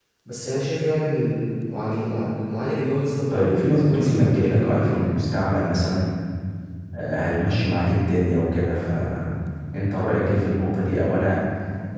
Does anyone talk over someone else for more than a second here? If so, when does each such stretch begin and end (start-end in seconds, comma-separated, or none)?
3.3-5.1